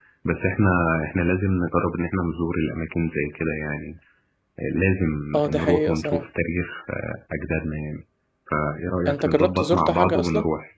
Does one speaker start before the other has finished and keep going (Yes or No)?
Yes